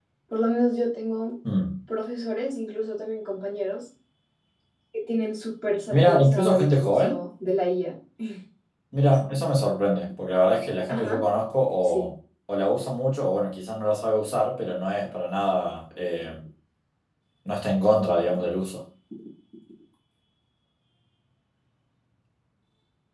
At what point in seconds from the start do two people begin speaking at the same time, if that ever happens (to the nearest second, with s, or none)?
6 s